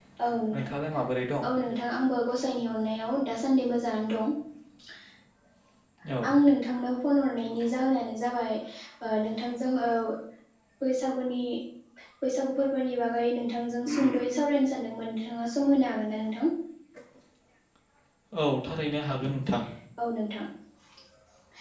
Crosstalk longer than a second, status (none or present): none